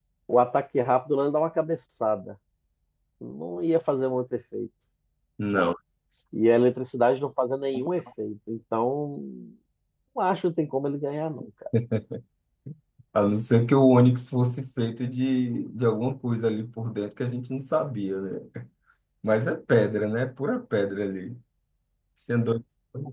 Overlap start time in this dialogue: none

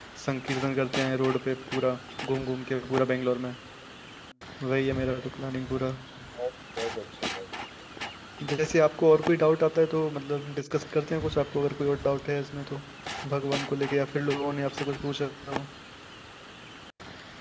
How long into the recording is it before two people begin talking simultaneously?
none

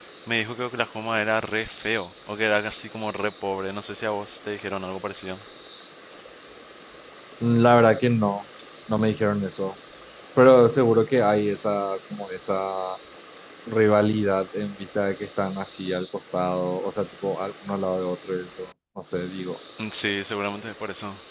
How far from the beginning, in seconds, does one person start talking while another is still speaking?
none

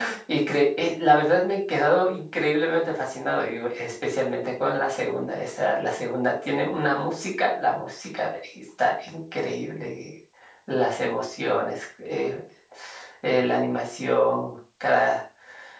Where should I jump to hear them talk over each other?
none

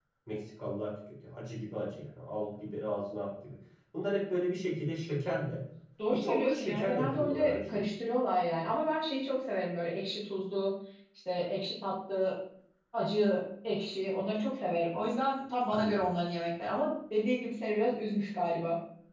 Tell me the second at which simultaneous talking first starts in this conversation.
6.1 s

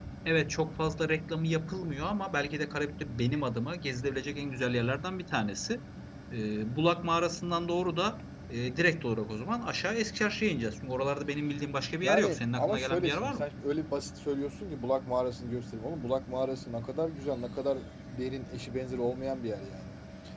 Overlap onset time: 12.0 s

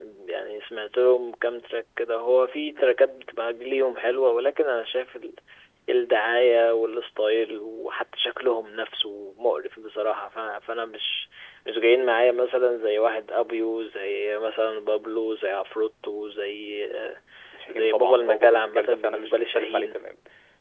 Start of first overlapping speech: 17.7 s

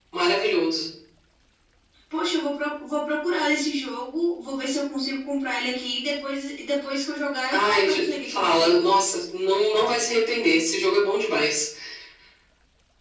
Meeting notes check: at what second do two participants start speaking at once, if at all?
7.5 s

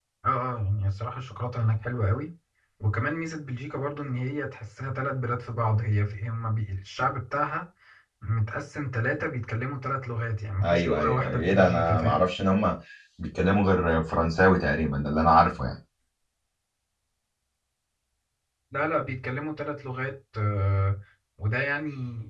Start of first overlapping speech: 10.6 s

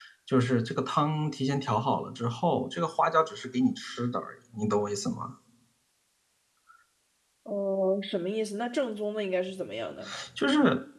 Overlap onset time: none

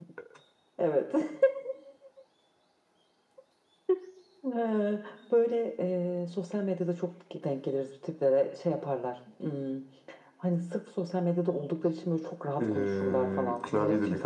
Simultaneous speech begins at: 12.6 s

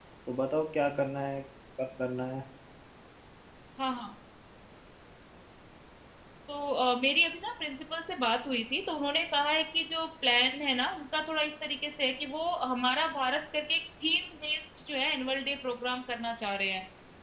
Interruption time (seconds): none

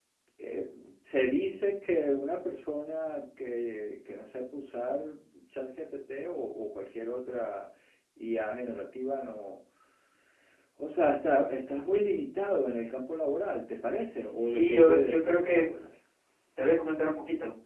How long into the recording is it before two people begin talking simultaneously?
14.3 s

